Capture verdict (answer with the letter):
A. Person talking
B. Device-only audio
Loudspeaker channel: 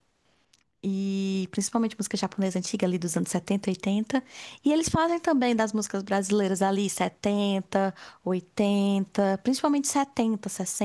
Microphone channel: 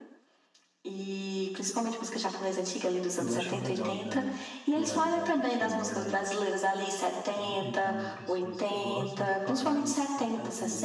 A